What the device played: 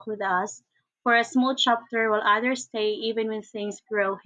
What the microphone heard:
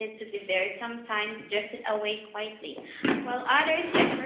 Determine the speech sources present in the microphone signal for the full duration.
user only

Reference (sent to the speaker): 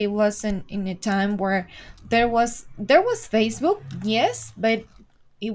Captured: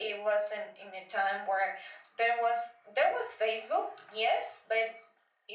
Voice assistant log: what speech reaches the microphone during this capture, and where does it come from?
echo only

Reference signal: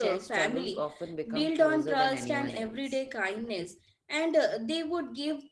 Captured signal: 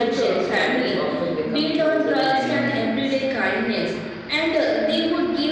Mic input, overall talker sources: echo only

